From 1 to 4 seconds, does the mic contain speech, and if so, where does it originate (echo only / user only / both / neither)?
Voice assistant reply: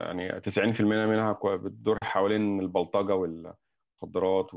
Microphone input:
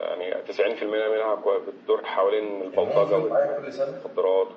both